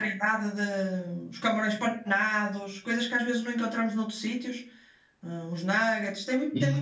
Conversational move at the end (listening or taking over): taking over